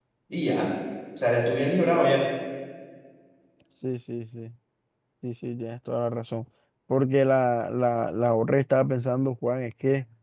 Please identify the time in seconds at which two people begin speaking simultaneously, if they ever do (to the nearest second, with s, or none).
none